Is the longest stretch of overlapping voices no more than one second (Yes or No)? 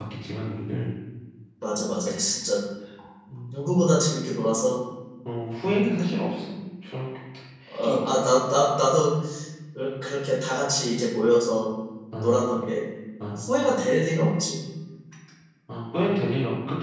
Yes